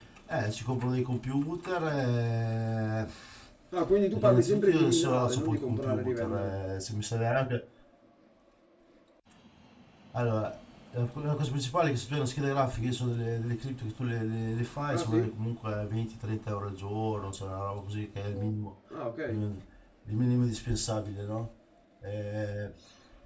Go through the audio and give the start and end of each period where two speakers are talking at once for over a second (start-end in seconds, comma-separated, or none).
4.1-6.5